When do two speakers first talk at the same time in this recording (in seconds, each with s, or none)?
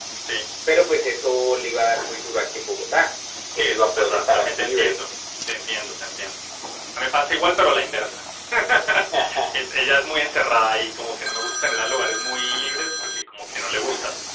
3.6 s